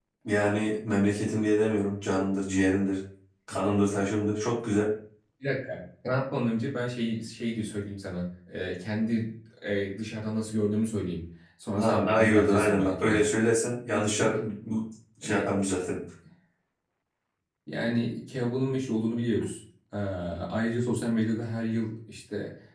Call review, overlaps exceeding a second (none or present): present